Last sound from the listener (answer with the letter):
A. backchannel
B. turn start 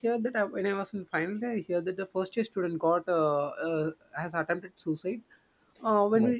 A